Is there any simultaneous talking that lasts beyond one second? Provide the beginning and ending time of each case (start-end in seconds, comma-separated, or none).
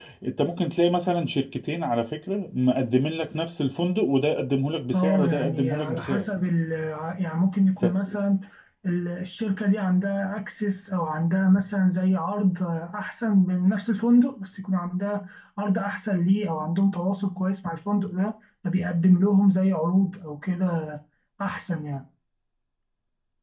4.9-6.2